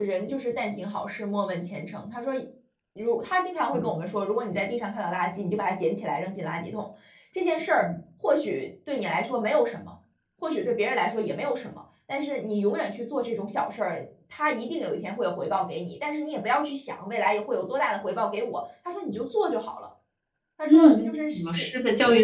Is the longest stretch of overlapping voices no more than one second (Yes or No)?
Yes